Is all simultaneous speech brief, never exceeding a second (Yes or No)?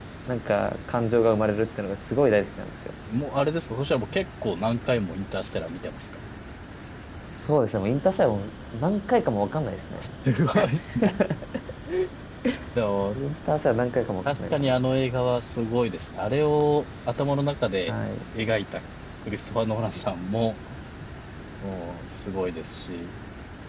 Yes